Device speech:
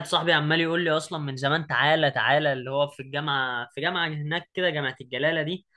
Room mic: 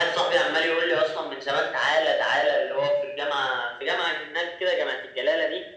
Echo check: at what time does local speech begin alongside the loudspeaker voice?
none

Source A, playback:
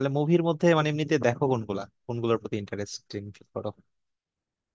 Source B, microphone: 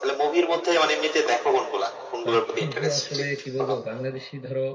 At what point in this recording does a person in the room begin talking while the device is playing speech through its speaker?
2 s

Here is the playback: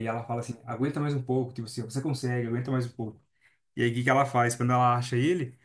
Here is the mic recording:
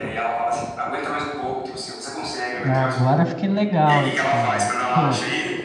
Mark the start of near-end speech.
3 s

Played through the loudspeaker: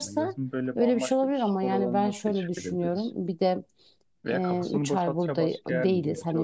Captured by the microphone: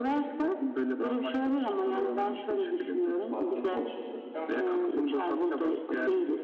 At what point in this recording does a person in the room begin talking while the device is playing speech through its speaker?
3 s

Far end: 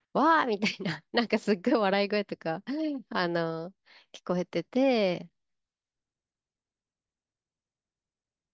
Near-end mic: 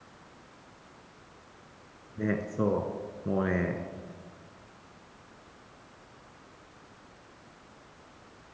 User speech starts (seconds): 2 s

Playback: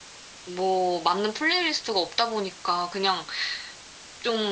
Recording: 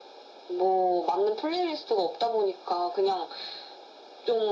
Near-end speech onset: none

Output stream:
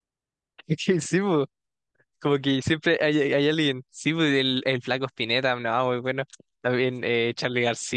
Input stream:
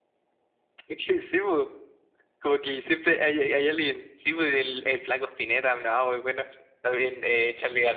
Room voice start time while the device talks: none

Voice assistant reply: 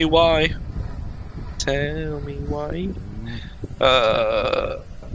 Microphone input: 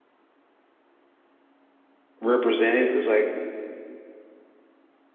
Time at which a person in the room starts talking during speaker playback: 2 s

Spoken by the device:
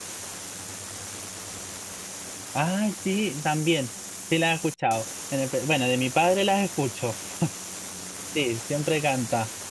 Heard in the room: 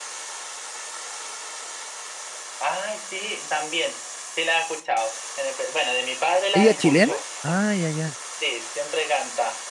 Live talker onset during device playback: 7 s

